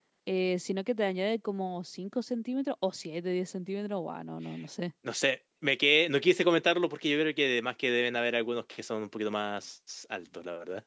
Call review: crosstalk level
none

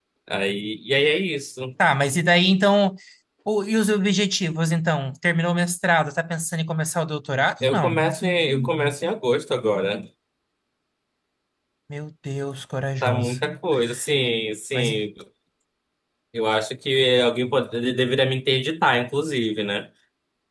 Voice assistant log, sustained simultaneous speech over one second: none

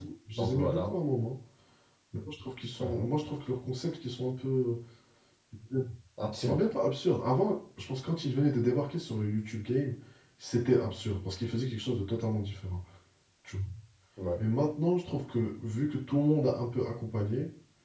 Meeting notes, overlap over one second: none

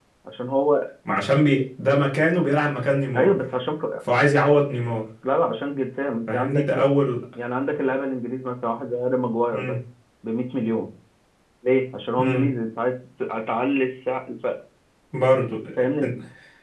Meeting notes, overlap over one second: none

